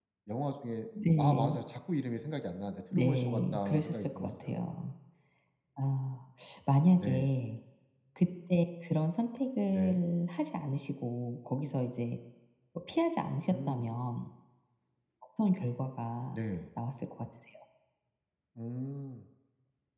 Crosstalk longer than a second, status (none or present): present